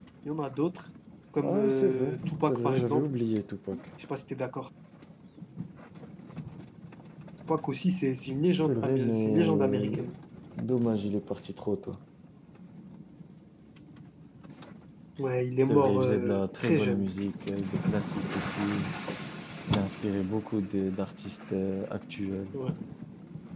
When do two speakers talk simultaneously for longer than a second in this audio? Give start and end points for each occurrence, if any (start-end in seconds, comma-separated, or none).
1.4-3.0, 8.7-9.9, 15.7-17.0